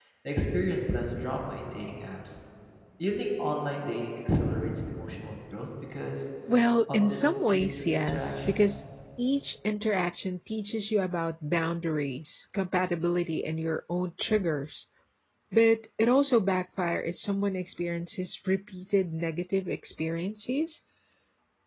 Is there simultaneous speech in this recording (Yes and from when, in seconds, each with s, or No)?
Yes, from 6.9 s